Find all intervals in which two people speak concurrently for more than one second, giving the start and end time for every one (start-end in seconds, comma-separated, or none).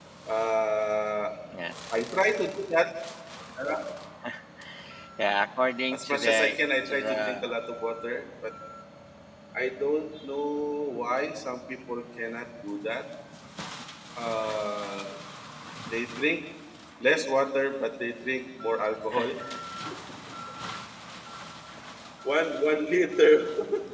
5.9-7.4